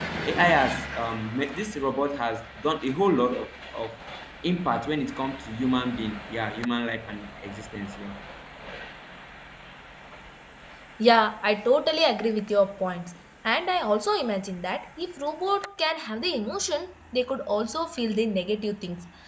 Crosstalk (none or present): none